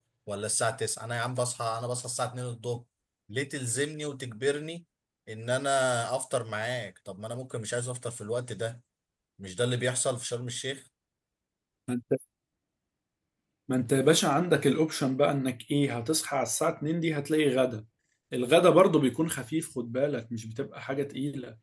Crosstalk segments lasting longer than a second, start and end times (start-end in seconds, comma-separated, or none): none